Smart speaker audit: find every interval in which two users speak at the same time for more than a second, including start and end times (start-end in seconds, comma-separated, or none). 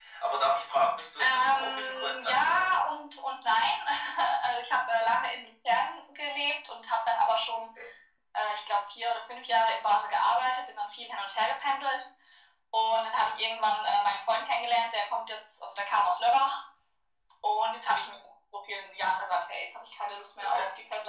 1.2-2.9